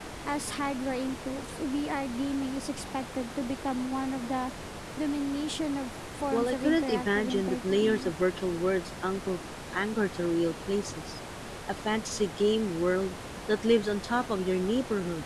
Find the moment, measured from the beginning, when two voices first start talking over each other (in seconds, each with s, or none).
6.3 s